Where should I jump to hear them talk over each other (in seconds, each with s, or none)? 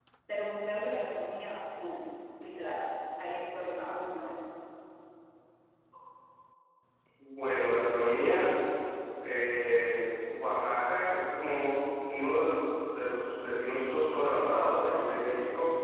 none